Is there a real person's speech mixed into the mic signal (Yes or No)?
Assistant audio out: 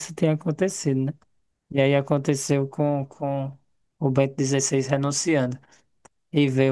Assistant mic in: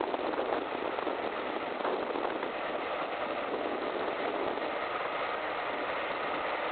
No